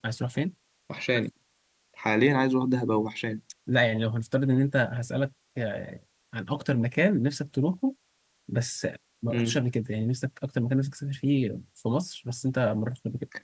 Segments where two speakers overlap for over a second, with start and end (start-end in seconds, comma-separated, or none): none